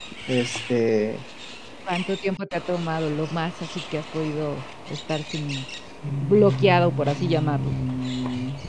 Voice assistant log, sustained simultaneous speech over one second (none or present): present